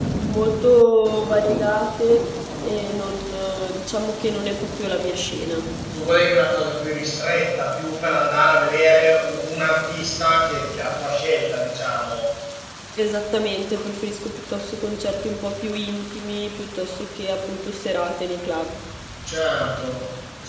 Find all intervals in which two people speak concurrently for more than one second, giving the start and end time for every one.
none

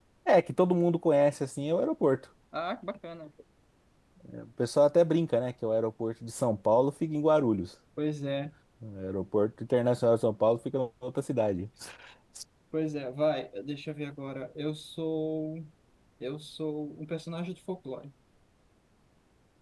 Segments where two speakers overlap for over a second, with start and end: none

